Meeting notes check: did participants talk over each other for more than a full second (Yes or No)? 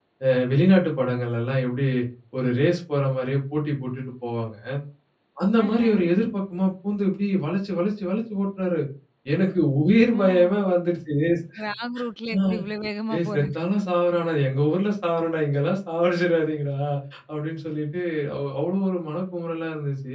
No